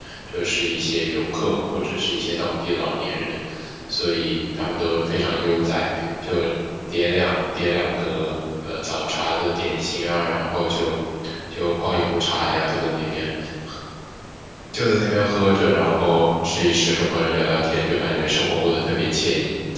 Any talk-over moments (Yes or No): No